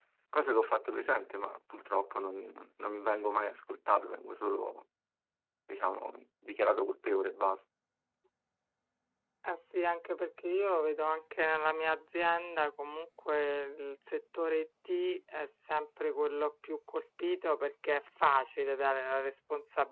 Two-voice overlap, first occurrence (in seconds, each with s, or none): none